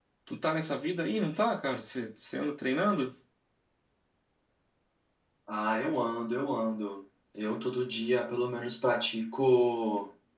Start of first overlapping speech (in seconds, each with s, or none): none